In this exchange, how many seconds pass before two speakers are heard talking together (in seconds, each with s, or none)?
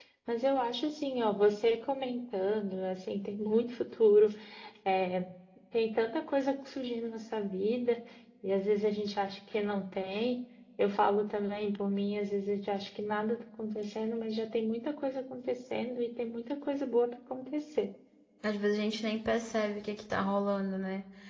none